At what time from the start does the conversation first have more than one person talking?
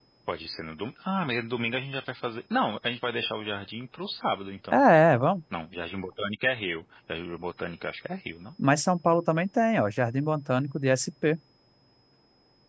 none

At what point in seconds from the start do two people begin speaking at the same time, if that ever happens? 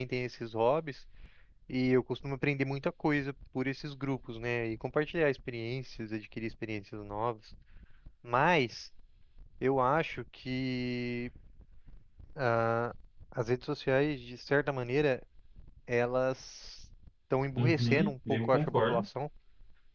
18 s

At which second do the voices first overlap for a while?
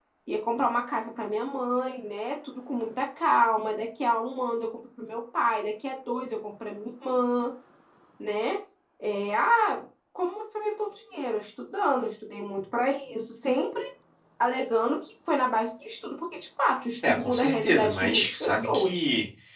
17 s

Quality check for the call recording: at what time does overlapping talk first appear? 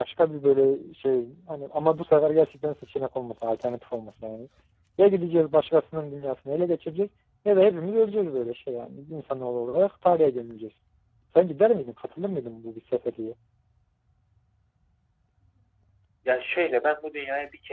none

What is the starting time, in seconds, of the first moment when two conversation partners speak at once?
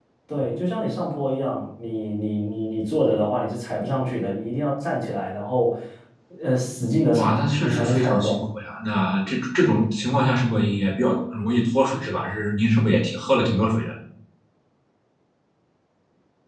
7 s

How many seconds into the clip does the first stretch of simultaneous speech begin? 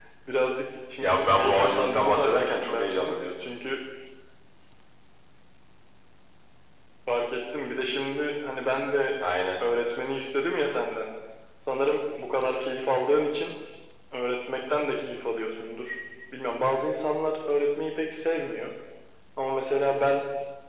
1 s

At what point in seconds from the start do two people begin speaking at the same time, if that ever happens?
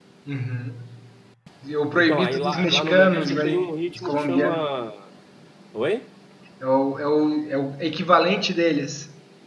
2 s

